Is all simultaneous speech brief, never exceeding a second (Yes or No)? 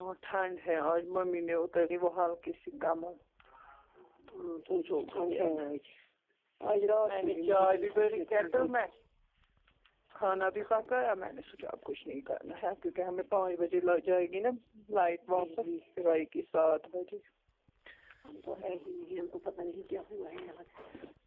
No